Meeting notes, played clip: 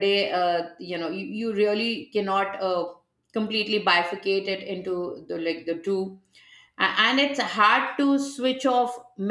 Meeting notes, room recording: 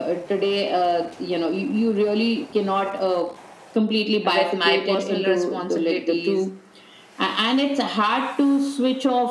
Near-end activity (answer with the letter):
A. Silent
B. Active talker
B